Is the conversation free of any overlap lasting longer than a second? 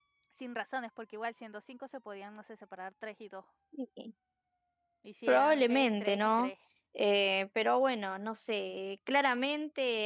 No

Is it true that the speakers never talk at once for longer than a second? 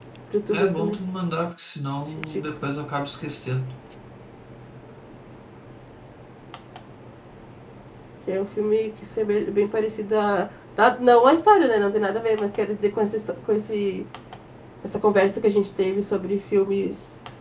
Yes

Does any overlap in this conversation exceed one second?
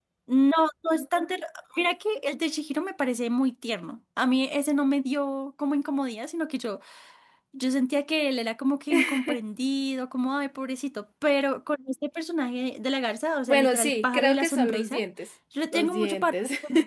Yes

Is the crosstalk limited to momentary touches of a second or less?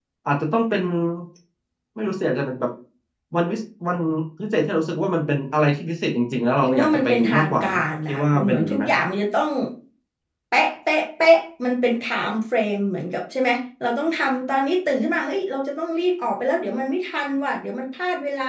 No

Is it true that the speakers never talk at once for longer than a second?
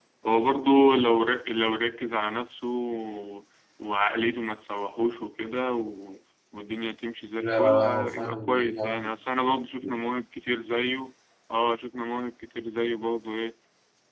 No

